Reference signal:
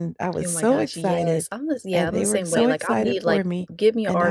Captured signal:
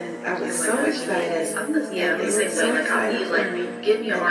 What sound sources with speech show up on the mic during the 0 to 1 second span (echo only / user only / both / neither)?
echo only